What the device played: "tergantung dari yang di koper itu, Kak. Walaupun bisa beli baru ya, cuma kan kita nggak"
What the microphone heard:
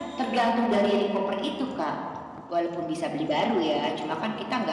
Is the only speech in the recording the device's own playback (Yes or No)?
Yes